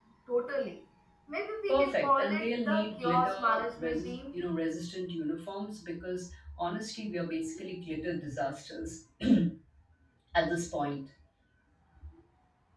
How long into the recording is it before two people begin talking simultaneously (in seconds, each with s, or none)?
1.7 s